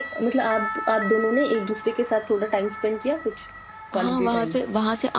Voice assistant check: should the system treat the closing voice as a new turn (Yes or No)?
Yes